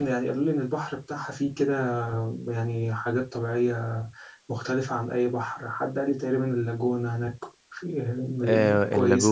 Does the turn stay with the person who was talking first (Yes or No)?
No